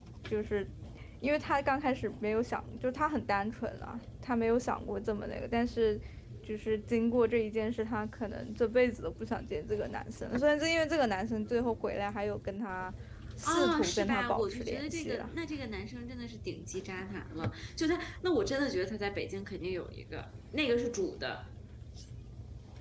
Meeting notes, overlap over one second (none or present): present